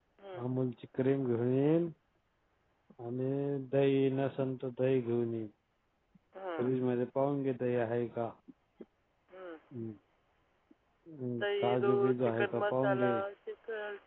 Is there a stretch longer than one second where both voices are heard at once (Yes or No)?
Yes